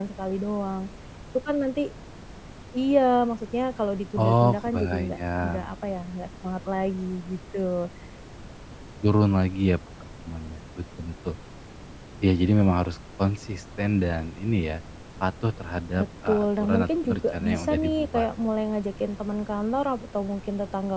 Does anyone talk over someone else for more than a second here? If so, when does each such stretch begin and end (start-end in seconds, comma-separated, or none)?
4.2-5.7, 16.0-18.3